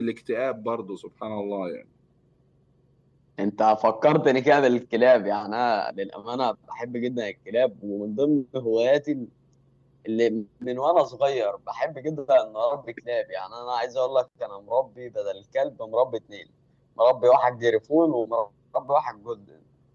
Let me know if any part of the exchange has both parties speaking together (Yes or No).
No